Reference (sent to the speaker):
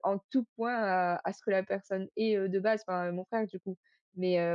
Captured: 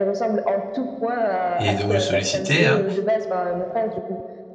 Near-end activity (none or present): present